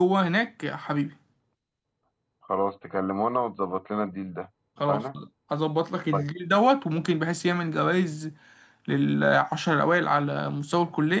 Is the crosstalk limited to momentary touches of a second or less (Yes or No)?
Yes